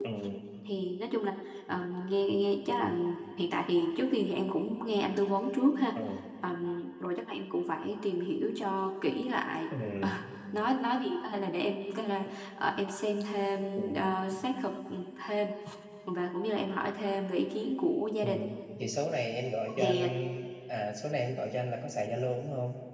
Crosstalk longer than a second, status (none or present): none